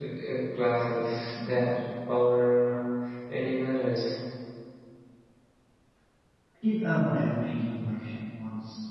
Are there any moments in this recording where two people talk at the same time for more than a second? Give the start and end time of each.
none

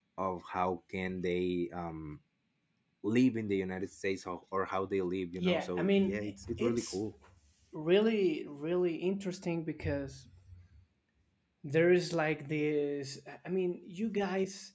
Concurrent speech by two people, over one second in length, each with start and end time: 5.4-7.0

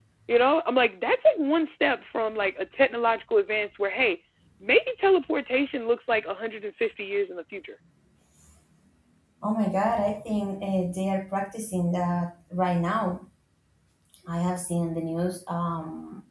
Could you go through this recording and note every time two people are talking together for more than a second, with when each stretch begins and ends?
none

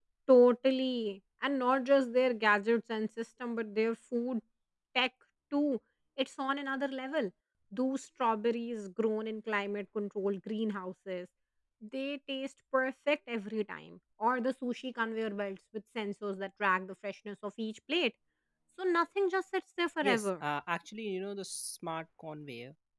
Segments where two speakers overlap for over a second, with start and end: none

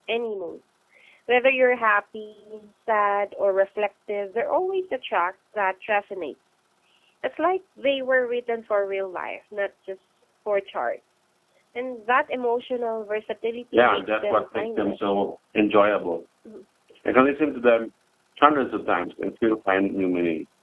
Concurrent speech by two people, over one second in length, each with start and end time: 13.7-15.0

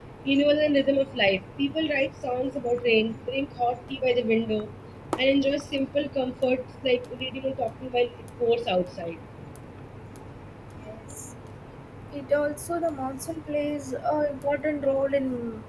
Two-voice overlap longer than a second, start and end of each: none

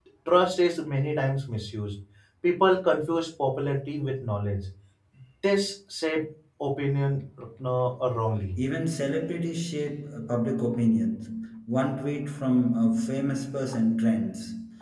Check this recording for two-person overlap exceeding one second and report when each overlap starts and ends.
none

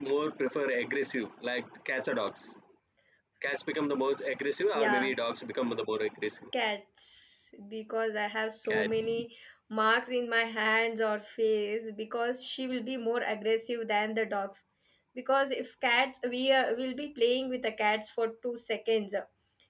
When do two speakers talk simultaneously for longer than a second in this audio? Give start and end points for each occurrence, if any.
none

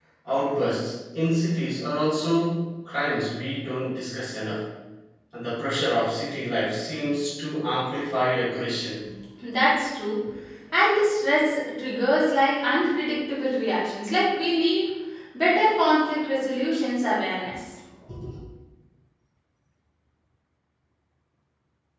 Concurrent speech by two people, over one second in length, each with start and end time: none

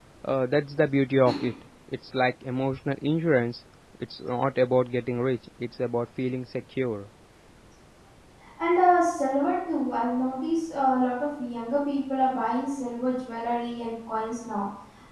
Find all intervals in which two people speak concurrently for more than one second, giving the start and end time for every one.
none

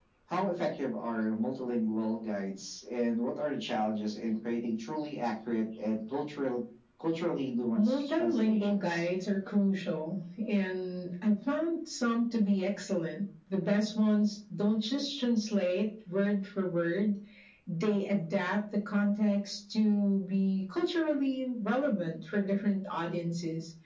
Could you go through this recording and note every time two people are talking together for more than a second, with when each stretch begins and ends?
7.8-9.1

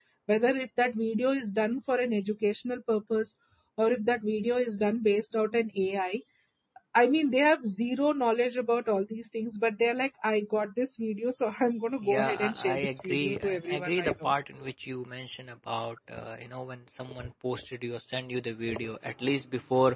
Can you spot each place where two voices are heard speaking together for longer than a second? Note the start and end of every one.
12.0-14.3

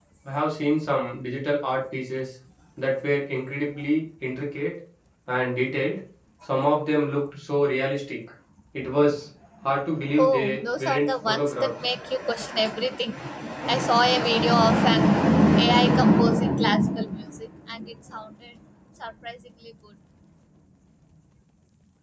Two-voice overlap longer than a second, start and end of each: 10.2-11.7

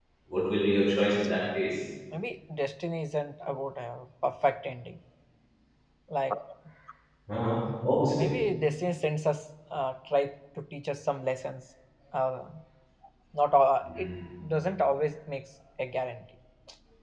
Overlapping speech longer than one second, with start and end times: none

